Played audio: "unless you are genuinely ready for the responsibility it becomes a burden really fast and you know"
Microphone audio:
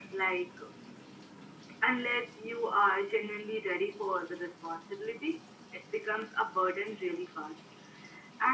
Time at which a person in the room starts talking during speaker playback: none

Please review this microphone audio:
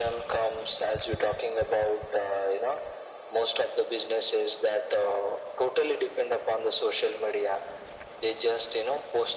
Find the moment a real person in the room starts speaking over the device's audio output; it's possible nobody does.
none

